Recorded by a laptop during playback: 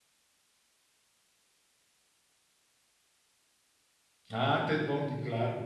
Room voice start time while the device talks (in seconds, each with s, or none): 4.3 s